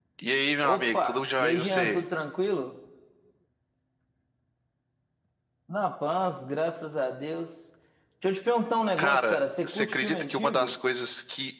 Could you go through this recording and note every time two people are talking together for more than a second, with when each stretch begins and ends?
0.6-2.0, 9.0-10.7

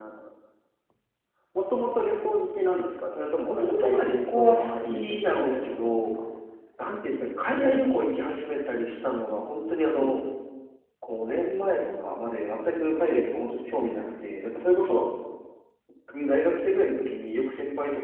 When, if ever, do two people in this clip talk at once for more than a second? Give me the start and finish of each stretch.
3.5-6.0

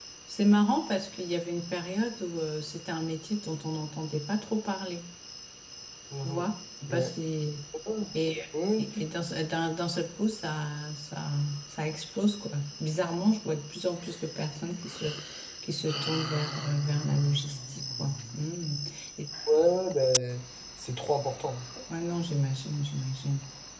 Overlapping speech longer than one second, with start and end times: none

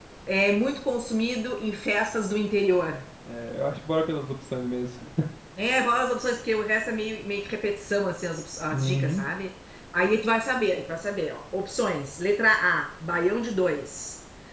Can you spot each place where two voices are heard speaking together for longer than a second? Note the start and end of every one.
none

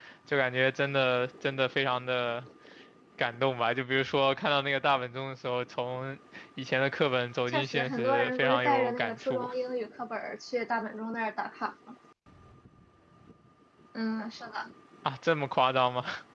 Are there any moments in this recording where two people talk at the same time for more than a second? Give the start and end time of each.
7.5-9.5

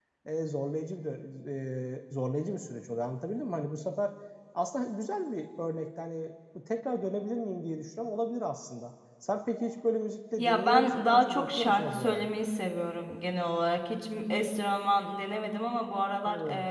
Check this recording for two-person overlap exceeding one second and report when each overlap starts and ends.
10.4-12.3

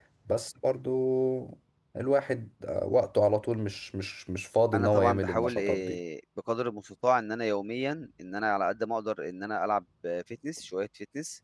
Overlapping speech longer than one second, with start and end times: 4.7-6.0

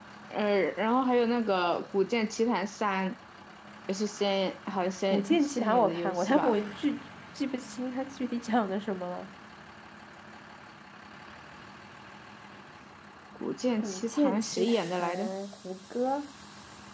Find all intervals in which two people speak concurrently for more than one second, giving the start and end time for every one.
5.1-6.6, 13.8-15.3

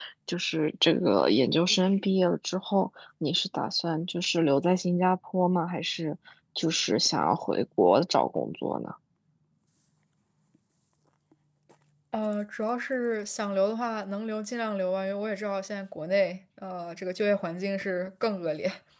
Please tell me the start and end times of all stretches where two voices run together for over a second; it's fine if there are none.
none

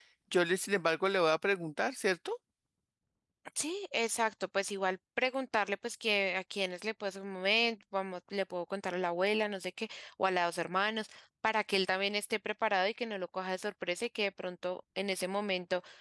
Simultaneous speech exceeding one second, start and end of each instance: none

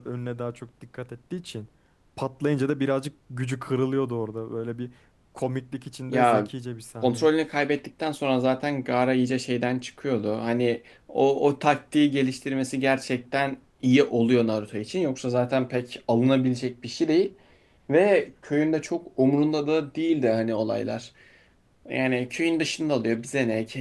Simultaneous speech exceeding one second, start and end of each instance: none

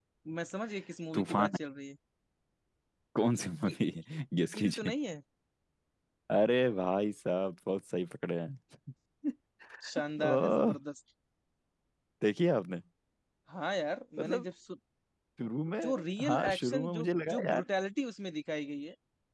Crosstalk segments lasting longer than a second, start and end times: 15.8-17.6

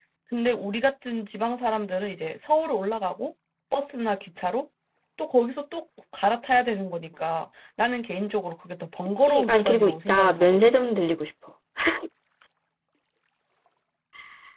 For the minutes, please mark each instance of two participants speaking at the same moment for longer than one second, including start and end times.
9.2-10.8

